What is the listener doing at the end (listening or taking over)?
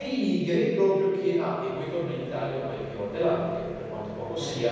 listening